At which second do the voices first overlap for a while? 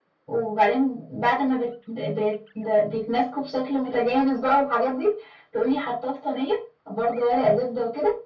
none

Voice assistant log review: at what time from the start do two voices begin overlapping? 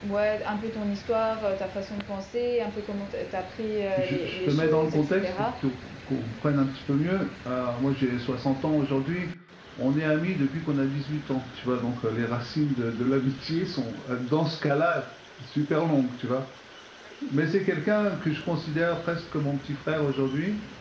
4.0 s

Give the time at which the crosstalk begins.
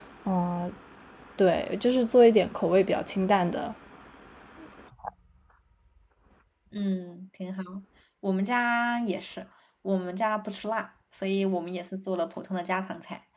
none

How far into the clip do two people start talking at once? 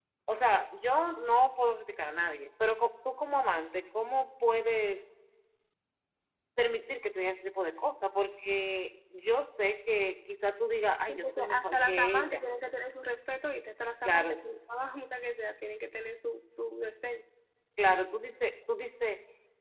11.1 s

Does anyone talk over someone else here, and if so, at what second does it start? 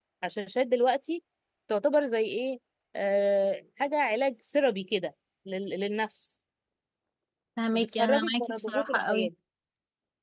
7.7 s

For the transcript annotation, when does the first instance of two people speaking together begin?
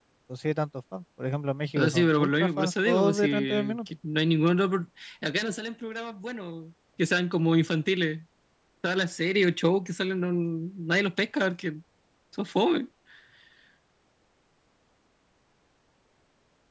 1.8 s

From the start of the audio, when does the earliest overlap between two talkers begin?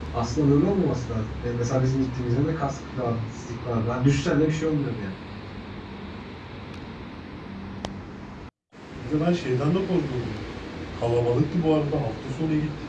none

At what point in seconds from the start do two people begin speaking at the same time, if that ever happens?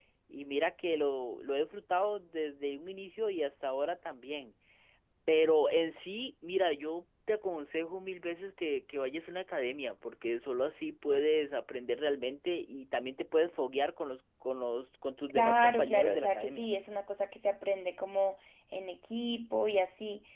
15.3 s

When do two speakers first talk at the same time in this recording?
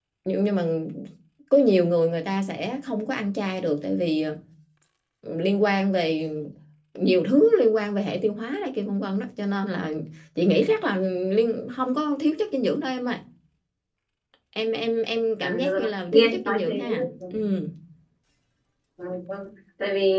15.4 s

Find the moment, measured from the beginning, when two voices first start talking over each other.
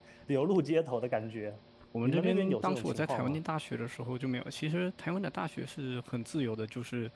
2.0 s

